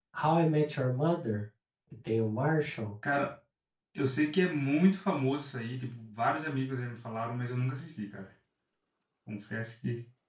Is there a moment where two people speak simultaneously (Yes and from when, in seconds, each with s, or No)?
No